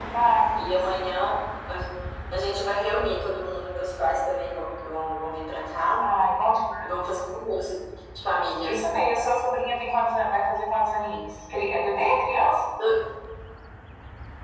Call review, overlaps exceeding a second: none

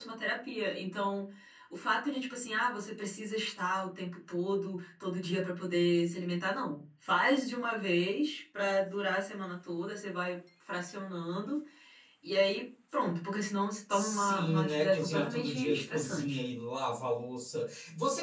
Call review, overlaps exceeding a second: present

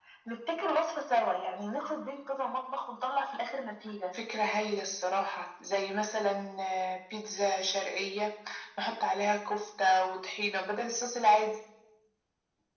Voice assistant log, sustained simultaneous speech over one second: none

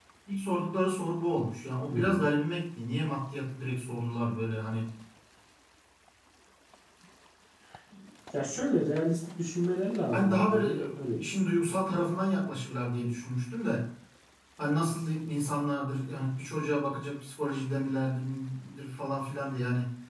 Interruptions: present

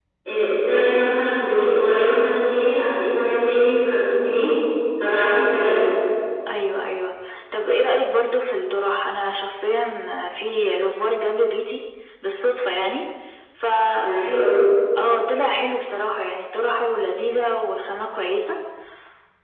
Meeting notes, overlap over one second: none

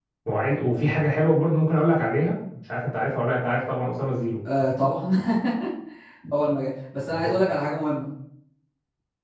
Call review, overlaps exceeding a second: none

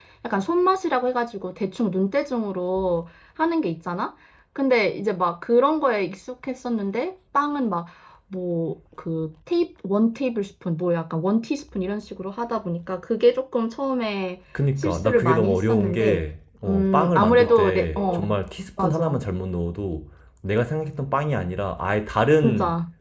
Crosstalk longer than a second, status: present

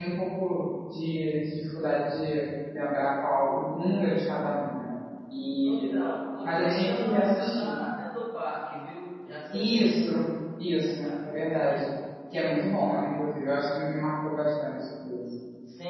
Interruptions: present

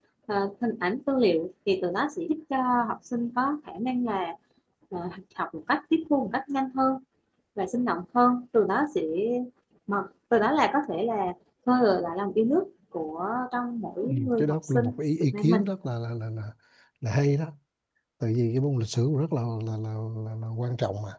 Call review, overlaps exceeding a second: present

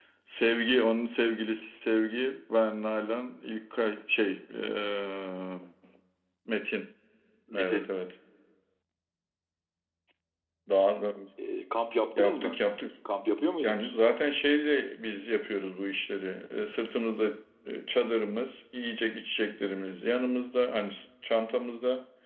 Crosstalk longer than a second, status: none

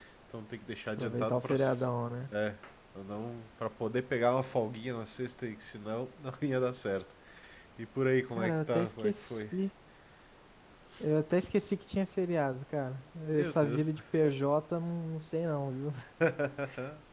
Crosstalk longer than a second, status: present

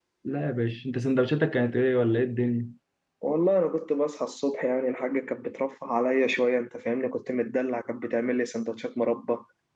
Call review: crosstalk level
none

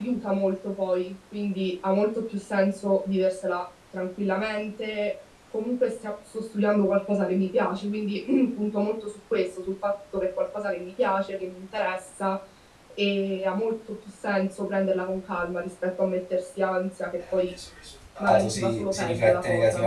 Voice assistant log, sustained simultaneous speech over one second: present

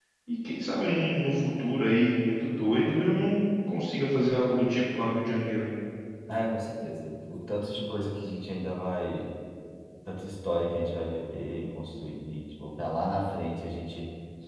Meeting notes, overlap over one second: none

